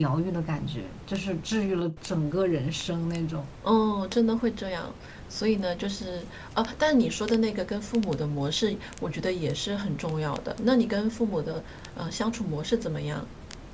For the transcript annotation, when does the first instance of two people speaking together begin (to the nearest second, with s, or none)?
none